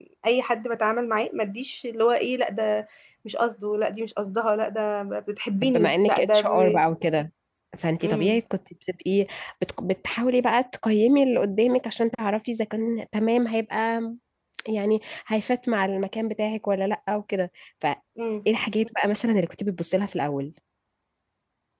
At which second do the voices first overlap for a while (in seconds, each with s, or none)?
5.6 s